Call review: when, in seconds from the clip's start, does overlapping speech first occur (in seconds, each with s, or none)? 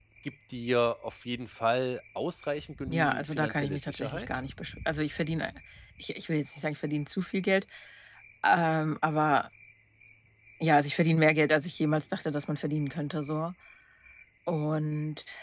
2.9 s